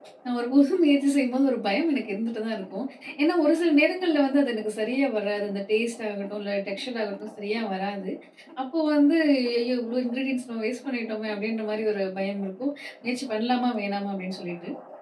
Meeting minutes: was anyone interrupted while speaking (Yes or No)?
No